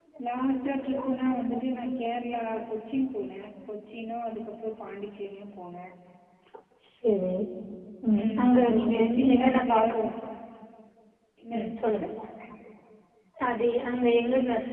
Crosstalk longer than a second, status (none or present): present